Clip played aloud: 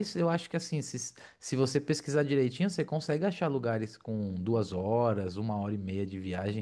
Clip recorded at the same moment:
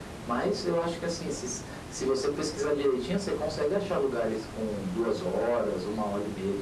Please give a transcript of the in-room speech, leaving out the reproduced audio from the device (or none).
none